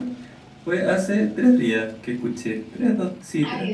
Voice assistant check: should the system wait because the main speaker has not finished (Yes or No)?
No